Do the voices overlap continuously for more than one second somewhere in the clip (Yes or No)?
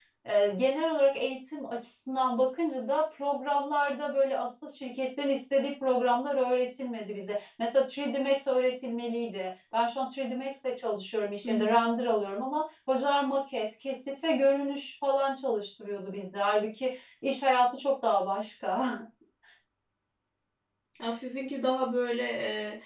No